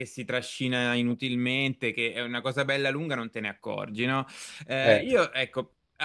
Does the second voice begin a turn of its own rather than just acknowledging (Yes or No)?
No